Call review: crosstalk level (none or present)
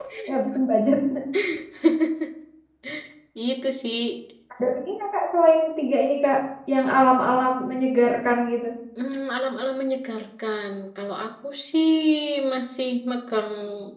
none